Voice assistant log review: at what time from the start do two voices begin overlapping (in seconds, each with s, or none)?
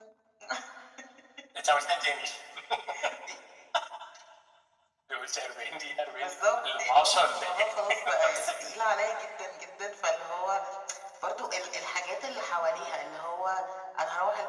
6.2 s